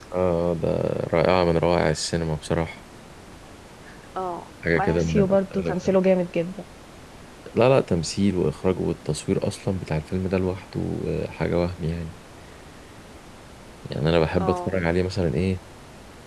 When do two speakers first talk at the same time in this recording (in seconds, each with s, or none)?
4.8 s